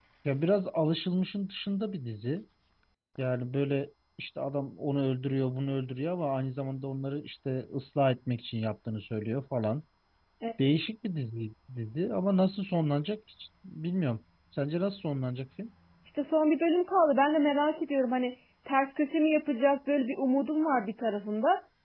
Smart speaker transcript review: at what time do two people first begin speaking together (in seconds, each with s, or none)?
none